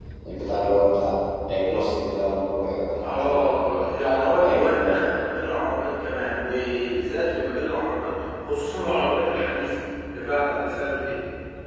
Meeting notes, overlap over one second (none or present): present